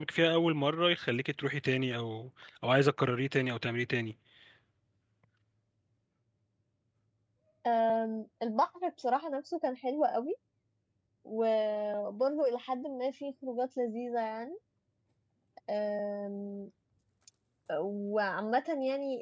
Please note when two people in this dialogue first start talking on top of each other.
none

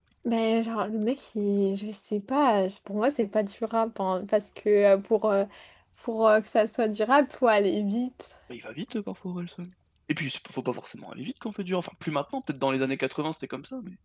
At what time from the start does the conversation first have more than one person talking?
none

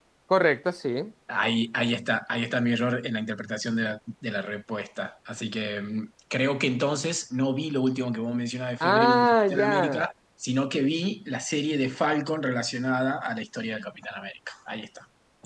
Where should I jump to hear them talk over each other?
9 s

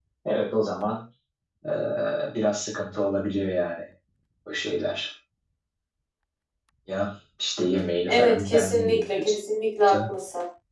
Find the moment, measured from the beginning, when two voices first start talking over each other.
8 s

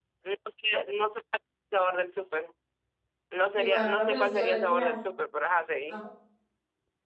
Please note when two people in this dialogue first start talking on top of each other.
4 s

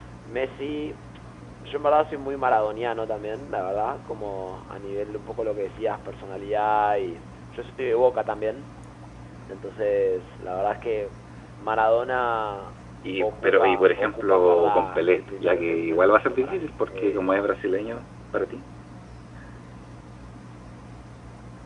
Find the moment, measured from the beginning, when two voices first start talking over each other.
13 s

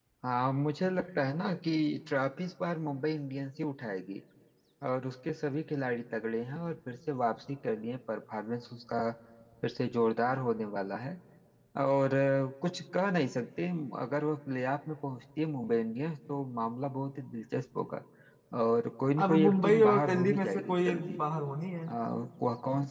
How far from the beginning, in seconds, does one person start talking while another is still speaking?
19 s

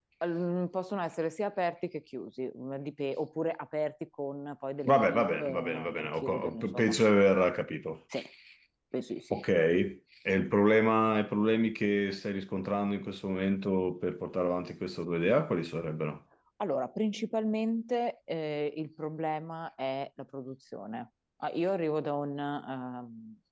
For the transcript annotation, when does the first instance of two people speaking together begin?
5 s

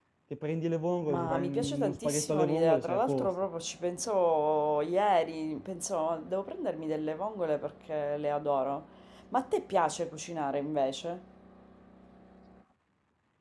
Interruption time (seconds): 1 s

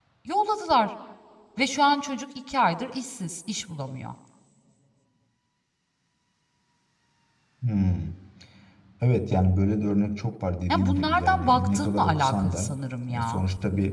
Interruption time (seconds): 11 s

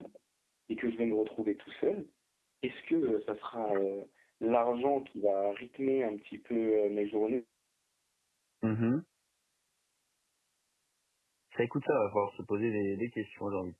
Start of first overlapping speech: none

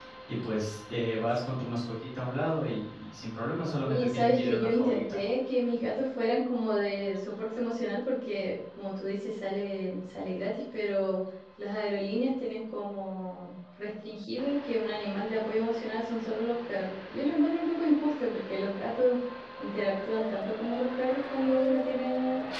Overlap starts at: 4 s

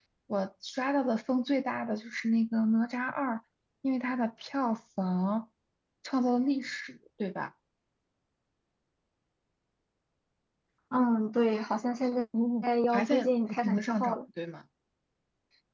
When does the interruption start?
13 s

